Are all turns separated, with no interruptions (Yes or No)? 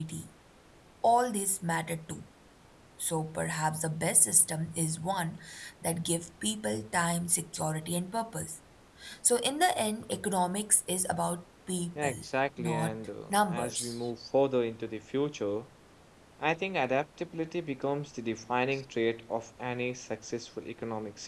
No